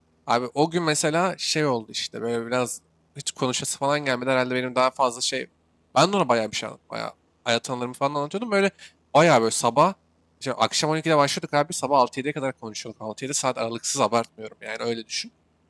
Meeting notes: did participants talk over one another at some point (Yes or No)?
No